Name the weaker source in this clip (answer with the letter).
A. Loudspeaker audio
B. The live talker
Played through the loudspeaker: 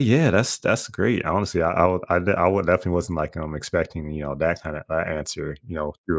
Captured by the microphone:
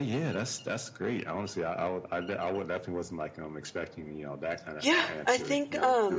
A